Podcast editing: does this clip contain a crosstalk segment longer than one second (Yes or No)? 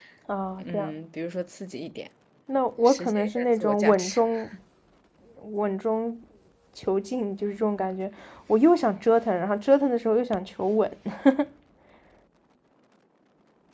Yes